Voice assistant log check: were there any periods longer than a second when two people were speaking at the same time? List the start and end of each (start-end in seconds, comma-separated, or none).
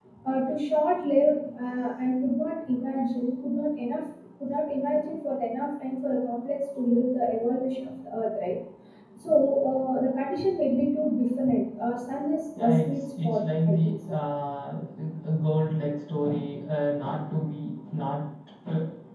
12.6-14.2